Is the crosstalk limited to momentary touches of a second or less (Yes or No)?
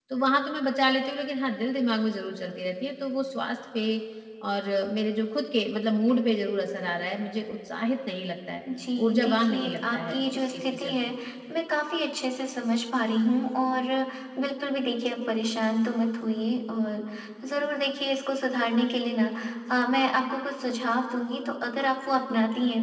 No